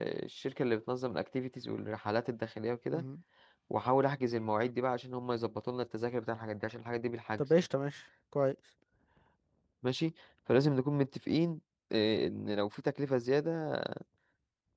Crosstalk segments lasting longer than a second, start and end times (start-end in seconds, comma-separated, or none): none